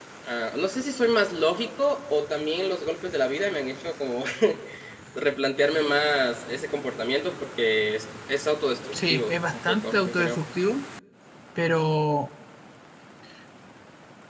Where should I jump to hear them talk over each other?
8.9 s

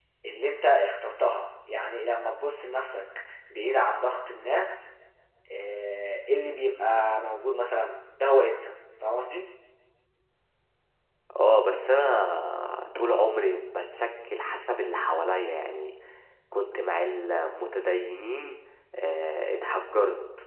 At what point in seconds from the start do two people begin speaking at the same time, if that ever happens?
none

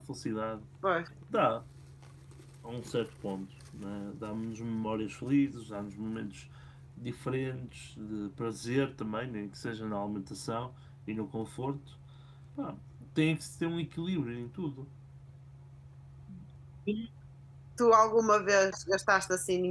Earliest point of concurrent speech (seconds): none

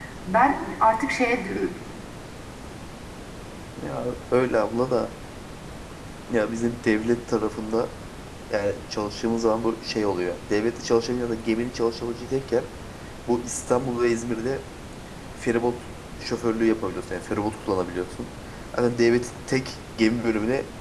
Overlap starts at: none

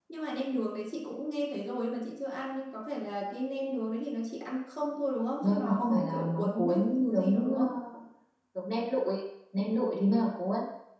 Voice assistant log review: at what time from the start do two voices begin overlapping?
5.4 s

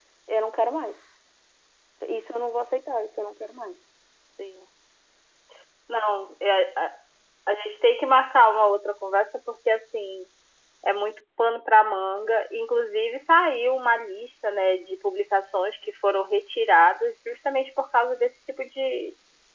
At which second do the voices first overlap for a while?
none

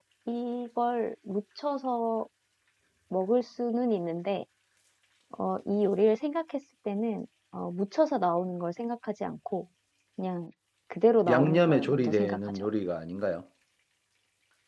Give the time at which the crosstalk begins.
11.3 s

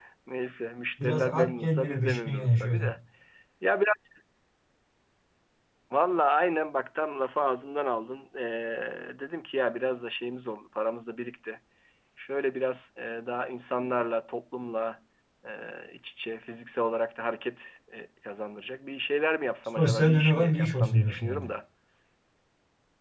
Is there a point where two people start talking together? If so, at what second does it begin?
1.0 s

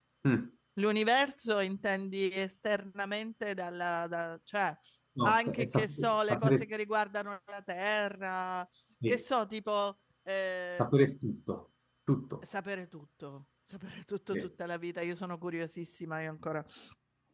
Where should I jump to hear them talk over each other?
5.2 s

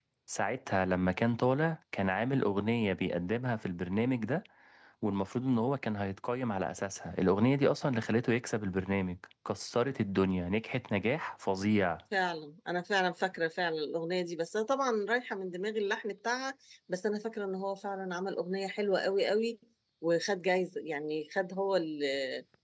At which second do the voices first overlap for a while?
none

